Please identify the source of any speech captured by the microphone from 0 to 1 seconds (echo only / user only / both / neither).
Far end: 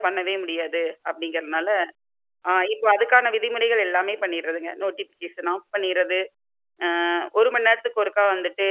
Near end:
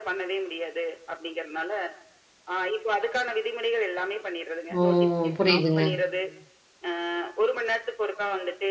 echo only